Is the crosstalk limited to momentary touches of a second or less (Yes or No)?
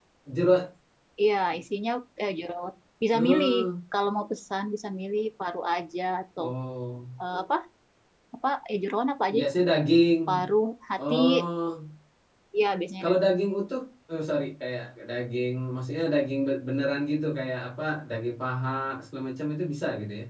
Yes